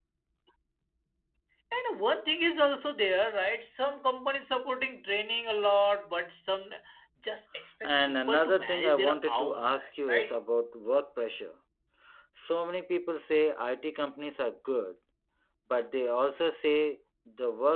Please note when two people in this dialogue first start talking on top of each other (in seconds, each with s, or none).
8.0 s